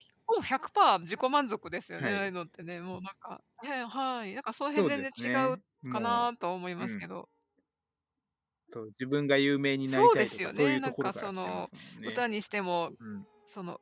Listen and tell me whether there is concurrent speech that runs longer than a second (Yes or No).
Yes